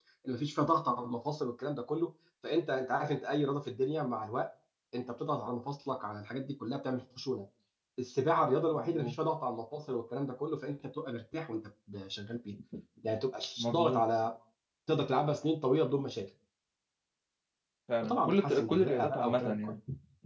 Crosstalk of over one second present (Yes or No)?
Yes